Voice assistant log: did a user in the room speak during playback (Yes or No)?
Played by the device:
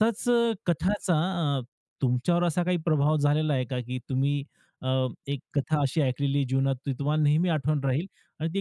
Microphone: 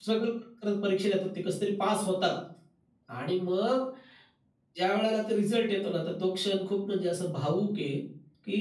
Yes